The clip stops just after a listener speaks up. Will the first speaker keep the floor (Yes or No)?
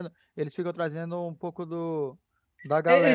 No